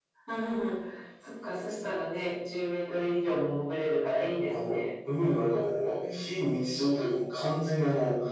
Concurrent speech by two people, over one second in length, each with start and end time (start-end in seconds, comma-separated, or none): none